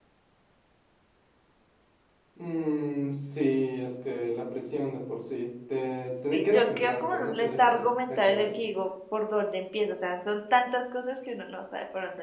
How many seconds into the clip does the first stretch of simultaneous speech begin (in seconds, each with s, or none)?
6.3 s